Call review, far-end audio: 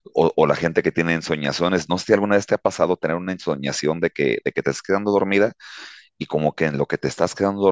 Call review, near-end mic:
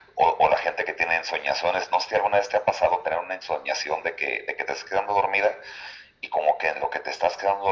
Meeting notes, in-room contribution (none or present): none